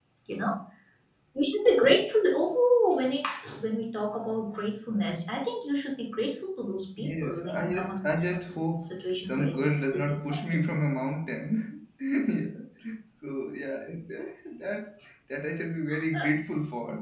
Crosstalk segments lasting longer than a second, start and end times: 7.0-10.3

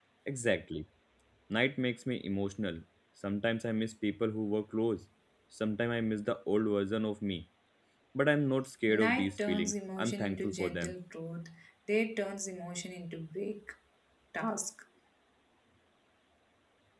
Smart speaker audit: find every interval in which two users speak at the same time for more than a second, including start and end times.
8.9-10.9

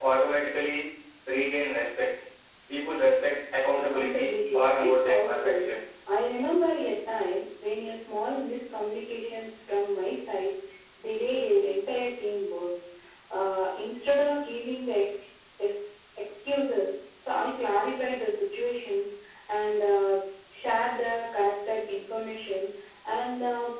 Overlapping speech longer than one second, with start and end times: 3.9-5.7

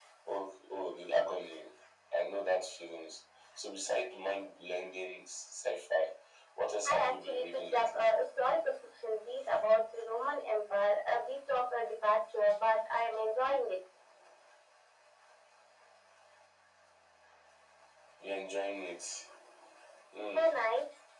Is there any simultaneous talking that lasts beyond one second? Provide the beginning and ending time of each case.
6.8-8.1

